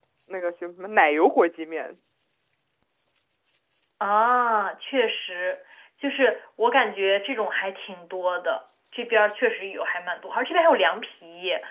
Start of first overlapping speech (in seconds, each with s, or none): none